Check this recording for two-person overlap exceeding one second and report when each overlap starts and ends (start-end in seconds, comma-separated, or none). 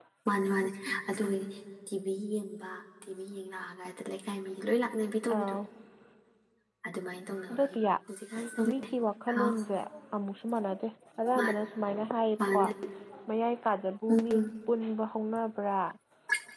none